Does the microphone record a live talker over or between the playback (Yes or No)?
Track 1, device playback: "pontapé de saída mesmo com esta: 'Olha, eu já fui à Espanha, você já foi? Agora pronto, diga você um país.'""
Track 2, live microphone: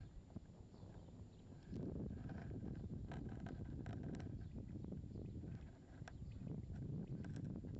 No